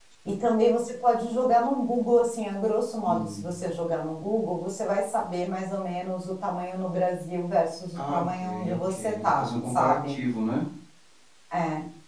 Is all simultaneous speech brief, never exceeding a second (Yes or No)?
No